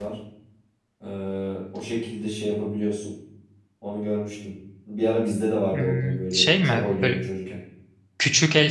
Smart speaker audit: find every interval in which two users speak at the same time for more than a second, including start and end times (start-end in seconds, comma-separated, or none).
5.7-7.2